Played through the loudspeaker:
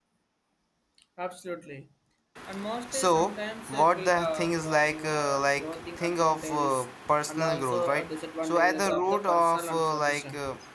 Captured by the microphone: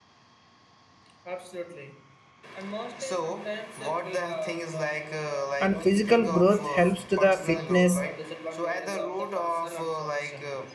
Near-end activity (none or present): present